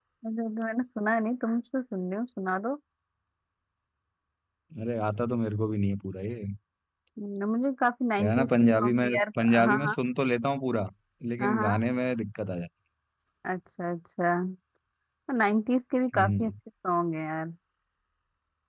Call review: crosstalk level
present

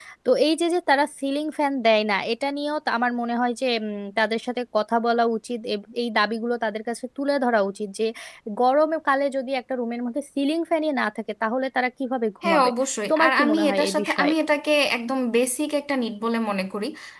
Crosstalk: present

